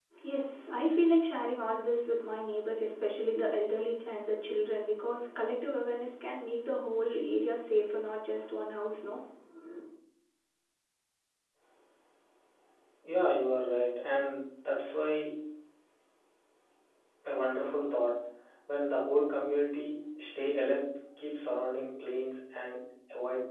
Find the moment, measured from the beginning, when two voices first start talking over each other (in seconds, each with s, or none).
none